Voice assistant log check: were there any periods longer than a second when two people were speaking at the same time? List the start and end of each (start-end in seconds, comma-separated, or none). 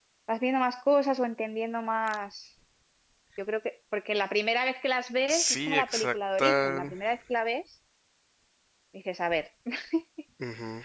5.3-6.8